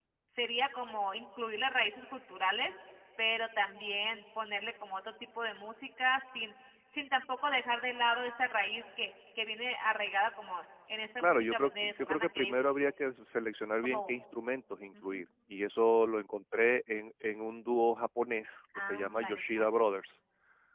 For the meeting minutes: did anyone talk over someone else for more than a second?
Yes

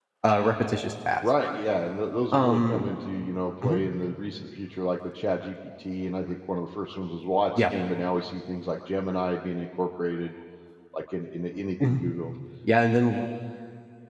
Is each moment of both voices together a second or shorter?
Yes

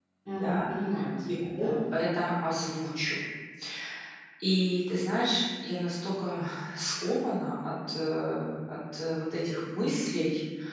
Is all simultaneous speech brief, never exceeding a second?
Yes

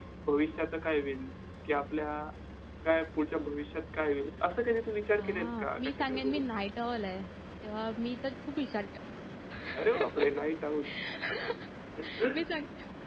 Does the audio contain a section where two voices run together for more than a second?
Yes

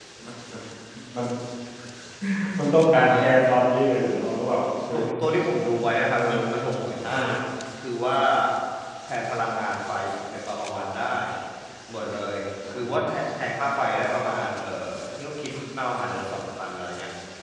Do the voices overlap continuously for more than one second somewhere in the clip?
No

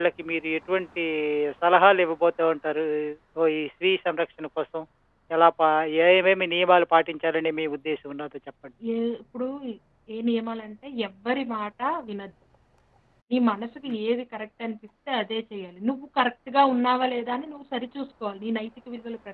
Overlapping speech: No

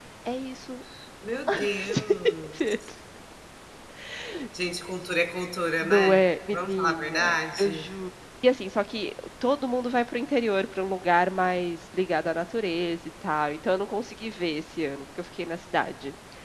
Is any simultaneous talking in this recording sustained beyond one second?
Yes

